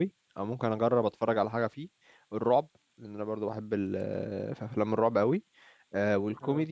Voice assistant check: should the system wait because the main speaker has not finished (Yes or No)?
Yes